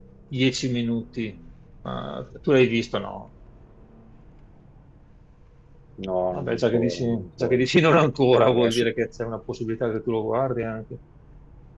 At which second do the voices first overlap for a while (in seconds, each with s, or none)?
6.3 s